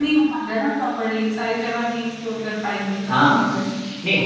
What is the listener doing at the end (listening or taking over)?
taking over